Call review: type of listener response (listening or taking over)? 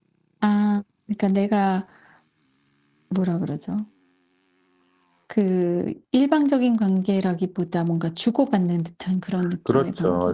taking over